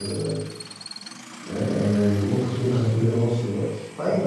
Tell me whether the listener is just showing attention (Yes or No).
No